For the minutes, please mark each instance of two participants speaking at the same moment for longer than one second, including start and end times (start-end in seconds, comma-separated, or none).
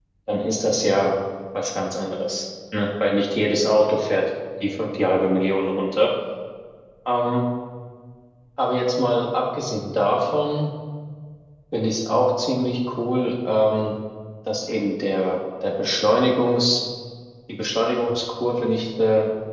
none